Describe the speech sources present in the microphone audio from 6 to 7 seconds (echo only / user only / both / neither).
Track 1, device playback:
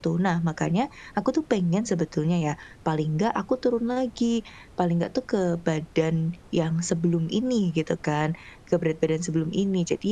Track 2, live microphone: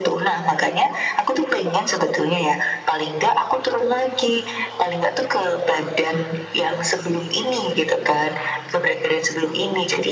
echo only